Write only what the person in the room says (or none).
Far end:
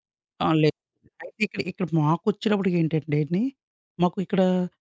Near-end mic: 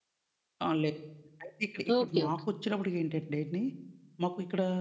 ఓకే. ఓకే.